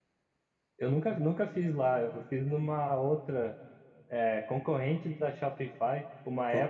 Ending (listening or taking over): listening